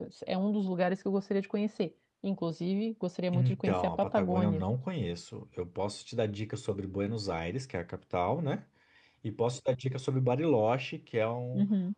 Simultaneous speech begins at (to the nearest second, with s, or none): 3 s